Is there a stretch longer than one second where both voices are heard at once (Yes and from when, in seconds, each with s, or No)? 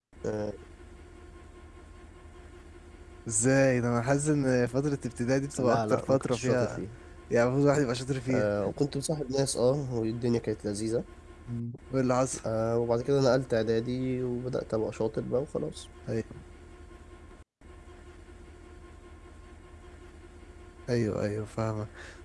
Yes, from 5.6 s